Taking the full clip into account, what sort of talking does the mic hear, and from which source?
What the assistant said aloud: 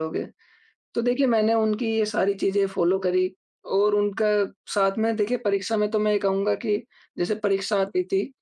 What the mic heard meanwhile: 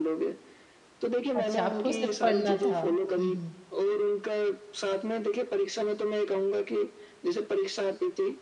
both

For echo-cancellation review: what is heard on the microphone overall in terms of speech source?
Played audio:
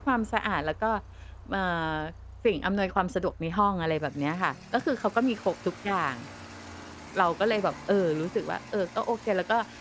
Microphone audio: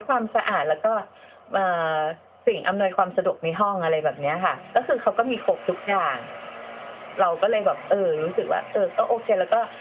echo only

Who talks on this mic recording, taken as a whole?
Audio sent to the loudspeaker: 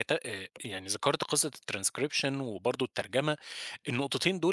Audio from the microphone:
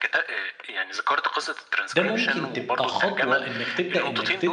both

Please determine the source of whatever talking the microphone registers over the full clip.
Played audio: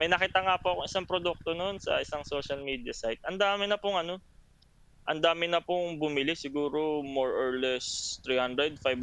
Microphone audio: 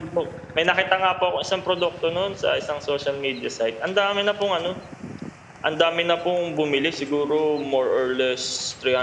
echo only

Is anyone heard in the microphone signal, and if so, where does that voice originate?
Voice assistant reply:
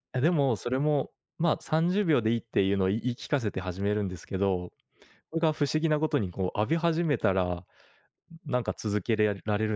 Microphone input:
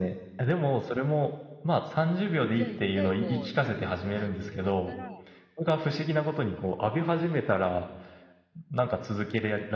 both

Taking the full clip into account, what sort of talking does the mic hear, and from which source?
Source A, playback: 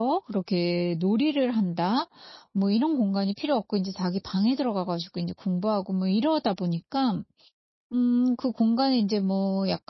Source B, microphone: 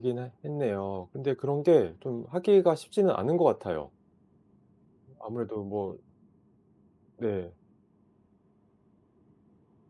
user only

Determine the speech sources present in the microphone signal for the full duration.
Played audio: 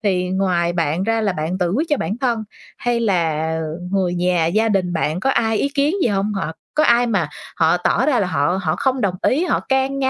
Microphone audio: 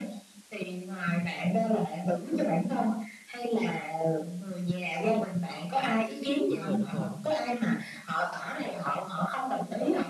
both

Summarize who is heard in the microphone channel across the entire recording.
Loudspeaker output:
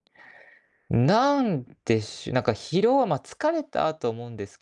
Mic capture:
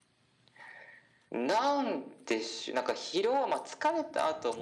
echo only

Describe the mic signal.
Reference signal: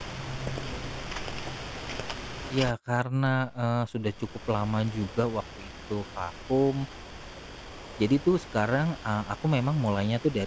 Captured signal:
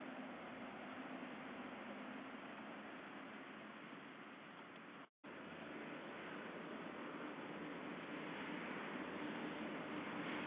neither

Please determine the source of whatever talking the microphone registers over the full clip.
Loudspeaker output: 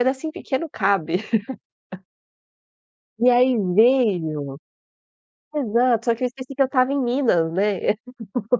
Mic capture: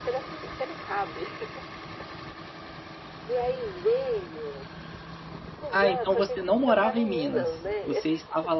both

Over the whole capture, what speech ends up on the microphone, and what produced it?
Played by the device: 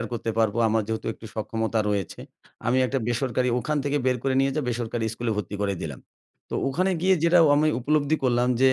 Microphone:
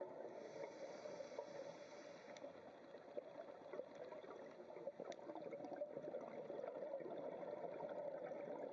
neither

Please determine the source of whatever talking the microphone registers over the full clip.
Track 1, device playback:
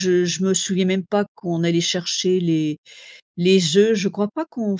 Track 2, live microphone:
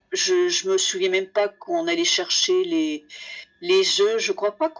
echo only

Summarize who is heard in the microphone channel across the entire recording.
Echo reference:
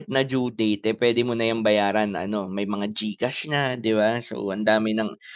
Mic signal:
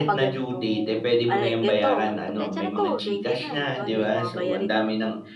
both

